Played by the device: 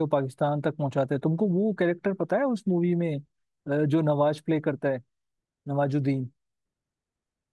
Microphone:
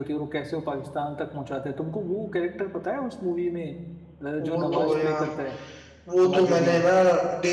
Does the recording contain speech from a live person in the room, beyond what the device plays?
Yes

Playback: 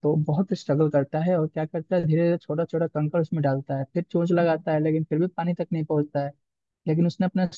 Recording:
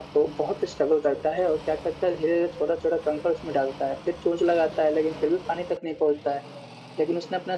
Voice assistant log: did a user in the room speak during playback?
No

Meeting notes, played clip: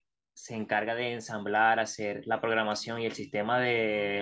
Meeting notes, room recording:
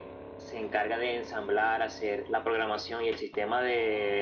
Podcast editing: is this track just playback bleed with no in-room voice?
Yes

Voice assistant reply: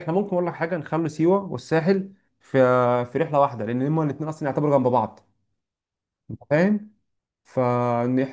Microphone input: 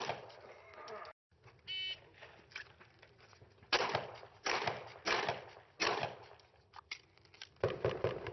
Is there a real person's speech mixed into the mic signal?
No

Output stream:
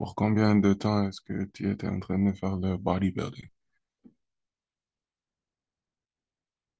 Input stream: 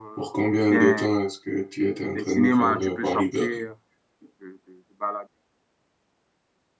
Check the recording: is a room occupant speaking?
Yes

